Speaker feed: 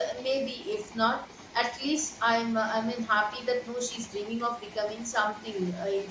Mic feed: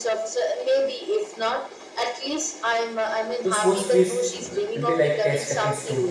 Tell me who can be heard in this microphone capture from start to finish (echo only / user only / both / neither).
both